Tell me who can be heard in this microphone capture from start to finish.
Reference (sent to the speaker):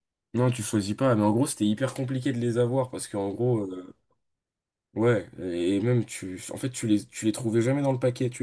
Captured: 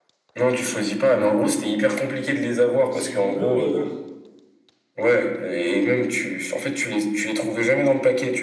both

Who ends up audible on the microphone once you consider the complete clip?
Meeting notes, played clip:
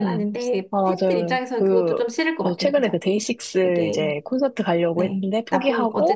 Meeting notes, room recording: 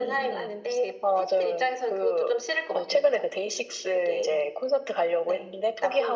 echo only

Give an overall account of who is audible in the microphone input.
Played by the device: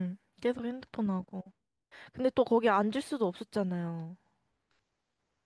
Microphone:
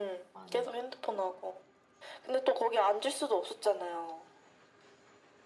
both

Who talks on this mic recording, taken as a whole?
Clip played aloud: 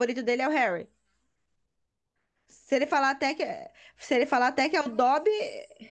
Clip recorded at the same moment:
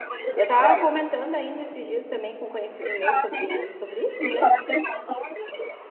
both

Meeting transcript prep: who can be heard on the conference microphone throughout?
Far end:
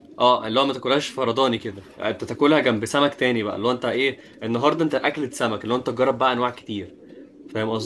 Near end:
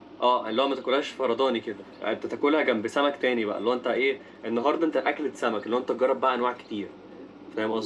echo only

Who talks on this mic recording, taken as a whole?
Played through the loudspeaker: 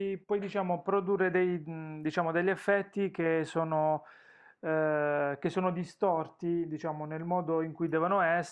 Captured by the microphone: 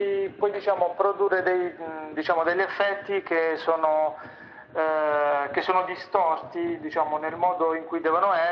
echo only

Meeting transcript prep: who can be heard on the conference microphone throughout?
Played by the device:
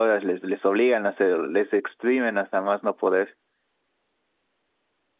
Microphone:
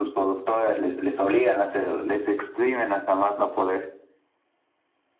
echo only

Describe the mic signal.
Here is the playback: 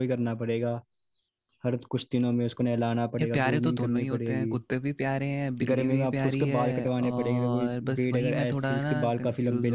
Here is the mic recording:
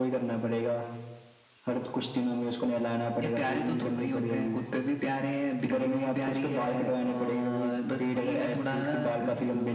echo only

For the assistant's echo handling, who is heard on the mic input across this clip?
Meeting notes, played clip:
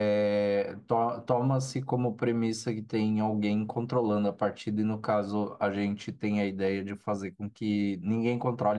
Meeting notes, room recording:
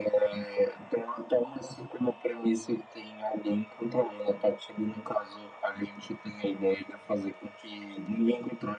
echo only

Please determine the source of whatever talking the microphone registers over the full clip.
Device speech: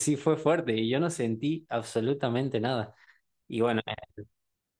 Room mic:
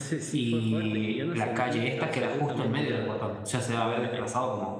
both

